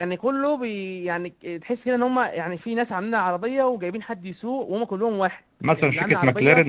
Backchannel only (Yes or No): No